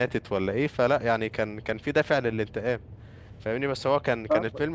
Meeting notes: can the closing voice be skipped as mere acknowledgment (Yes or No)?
Yes